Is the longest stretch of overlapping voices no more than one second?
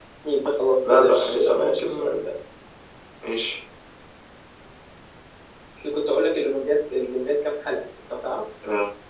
No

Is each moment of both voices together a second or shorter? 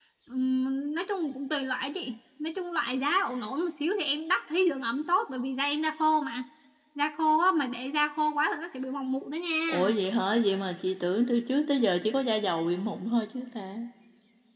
Yes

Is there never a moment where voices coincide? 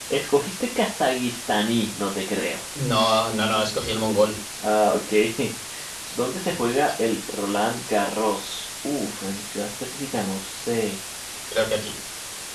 Yes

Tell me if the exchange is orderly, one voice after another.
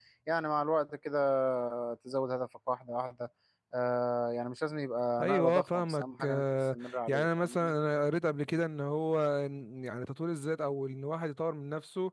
No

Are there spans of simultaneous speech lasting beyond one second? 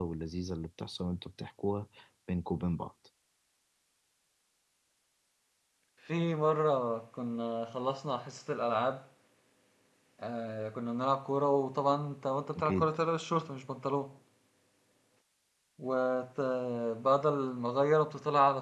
No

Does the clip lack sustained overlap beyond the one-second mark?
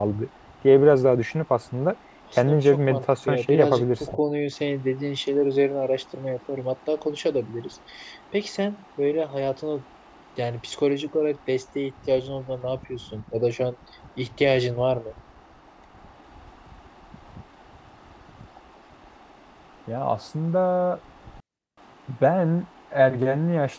No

